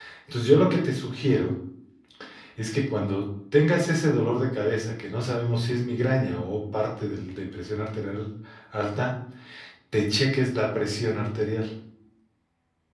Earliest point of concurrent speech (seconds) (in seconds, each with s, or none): none